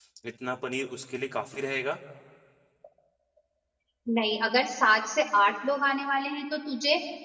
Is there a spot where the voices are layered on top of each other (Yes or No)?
No